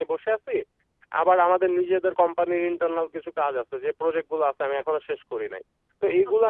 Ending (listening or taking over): listening